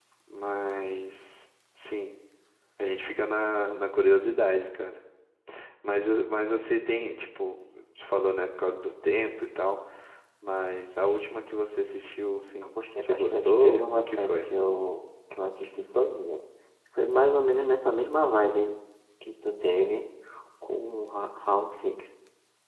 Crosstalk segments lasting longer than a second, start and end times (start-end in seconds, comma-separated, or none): 12.8-14.5